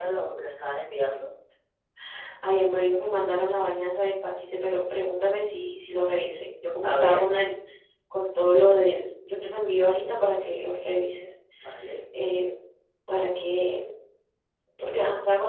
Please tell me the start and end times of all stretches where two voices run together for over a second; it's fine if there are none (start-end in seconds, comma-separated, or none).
none